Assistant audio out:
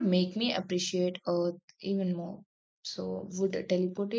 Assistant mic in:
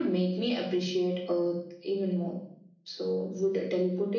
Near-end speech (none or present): none